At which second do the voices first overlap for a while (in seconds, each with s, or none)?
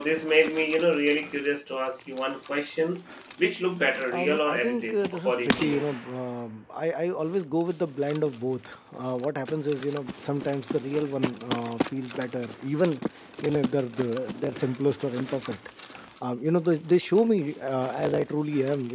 4.1 s